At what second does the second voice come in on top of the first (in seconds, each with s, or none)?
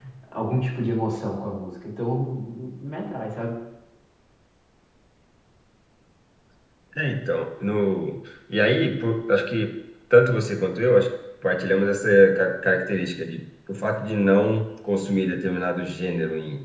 none